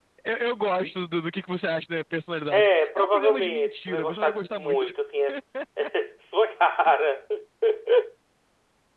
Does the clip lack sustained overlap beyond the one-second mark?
No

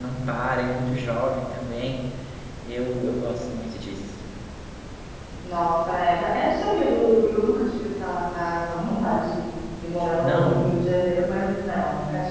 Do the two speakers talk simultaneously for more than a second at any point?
No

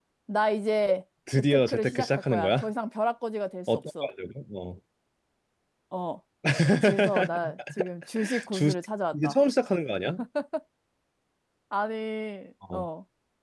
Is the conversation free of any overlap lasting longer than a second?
No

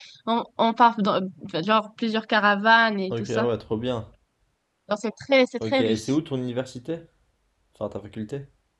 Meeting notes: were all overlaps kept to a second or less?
Yes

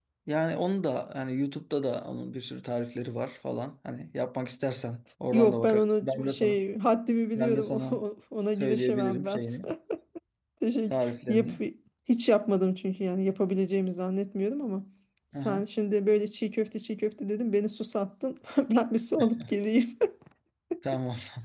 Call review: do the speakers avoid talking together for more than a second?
No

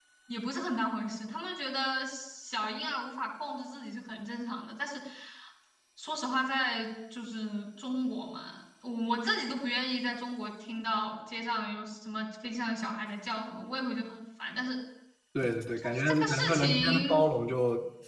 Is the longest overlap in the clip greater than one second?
Yes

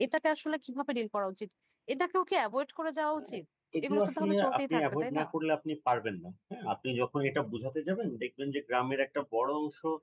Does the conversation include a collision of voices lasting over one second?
Yes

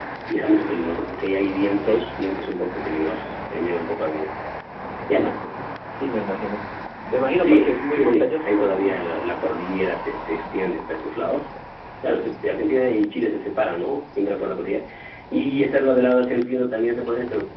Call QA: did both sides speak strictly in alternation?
No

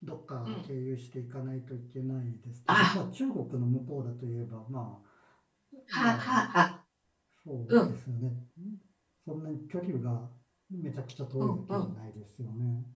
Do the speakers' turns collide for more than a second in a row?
No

